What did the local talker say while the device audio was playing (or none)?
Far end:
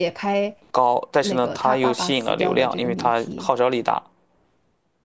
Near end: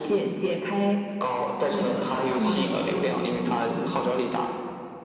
嗯，